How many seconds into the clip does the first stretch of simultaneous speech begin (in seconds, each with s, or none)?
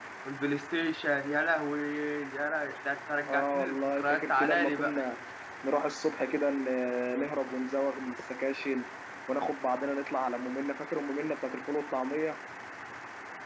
3.3 s